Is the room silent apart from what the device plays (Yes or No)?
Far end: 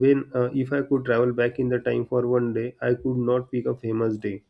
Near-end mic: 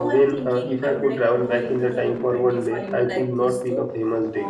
No